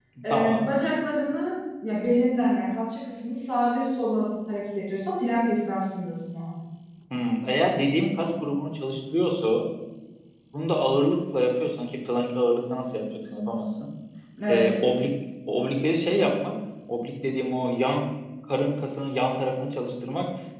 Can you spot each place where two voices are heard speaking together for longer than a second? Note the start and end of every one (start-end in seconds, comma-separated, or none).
none